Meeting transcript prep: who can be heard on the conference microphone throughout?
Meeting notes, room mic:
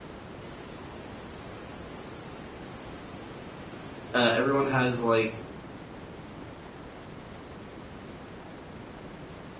user only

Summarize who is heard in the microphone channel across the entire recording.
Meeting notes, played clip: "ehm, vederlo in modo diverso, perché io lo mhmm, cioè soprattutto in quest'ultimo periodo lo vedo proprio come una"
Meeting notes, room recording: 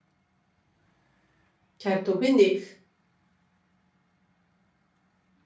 user only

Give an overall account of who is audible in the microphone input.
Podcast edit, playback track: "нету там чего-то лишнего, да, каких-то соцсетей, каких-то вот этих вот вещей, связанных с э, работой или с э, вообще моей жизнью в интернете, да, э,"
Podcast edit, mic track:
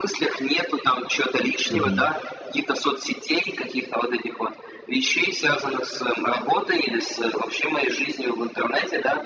both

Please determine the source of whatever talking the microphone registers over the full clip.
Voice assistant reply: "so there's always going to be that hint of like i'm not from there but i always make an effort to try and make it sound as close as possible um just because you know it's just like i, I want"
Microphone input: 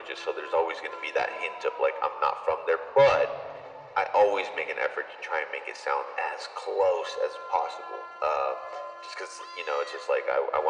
echo only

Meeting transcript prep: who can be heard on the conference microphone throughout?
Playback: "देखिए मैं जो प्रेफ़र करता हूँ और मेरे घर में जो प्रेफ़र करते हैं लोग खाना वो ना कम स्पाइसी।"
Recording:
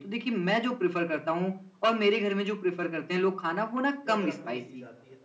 both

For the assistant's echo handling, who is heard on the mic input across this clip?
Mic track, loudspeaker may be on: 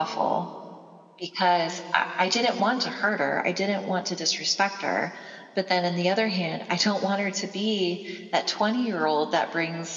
echo only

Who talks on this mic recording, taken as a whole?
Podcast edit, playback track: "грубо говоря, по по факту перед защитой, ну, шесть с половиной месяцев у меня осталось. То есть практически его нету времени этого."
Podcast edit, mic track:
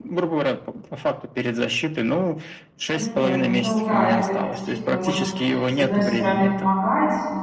both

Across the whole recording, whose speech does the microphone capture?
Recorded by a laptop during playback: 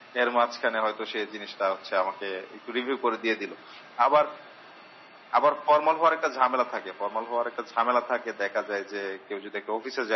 echo only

